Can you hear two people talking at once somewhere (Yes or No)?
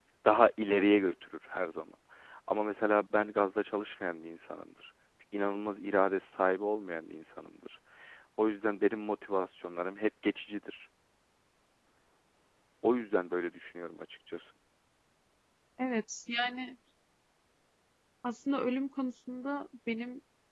No